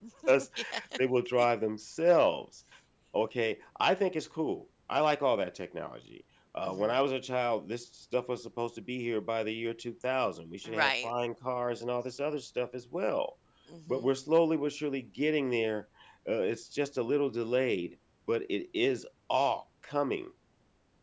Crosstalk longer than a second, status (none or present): none